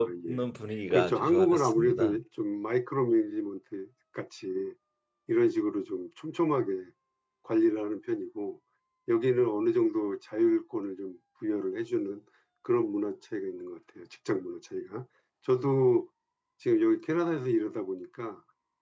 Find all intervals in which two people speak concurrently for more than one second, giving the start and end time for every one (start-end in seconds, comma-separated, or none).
0.9-2.2